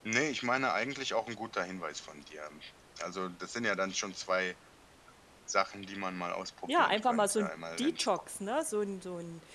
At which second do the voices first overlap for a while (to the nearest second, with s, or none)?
7 s